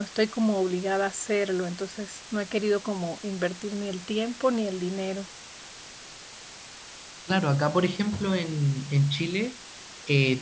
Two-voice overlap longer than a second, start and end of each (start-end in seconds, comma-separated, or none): none